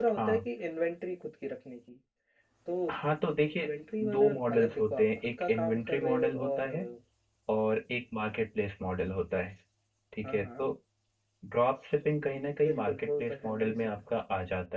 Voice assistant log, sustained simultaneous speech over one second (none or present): present